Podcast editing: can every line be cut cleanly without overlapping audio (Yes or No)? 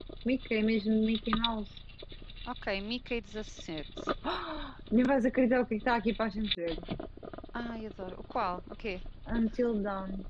Yes